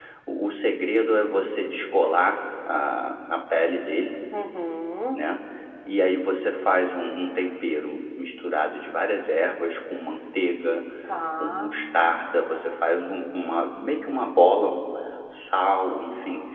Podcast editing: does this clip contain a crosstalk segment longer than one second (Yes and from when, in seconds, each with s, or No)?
No